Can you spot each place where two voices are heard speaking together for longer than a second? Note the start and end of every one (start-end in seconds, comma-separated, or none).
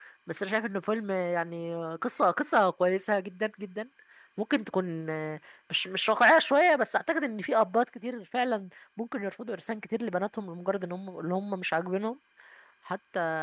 none